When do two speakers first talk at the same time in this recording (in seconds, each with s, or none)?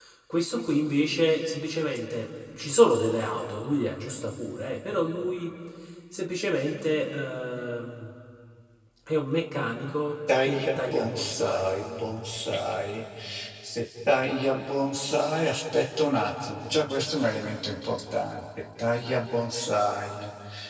10.3 s